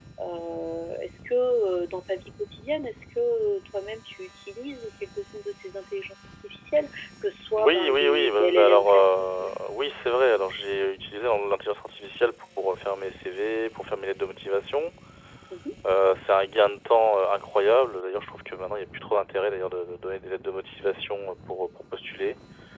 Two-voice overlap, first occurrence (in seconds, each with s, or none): 7.6 s